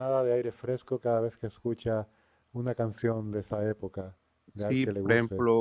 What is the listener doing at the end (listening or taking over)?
taking over